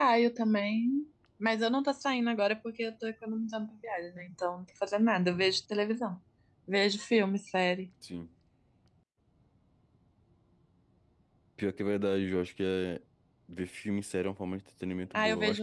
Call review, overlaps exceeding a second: none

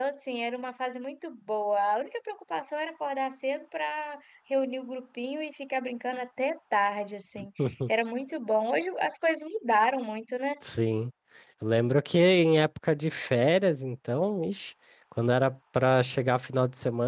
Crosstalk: none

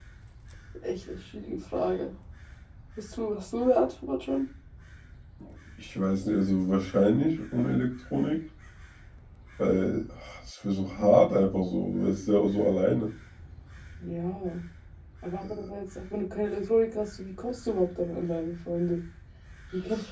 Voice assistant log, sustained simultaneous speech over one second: none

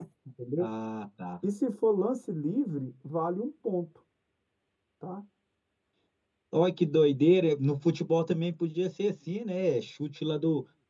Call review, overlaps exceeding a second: none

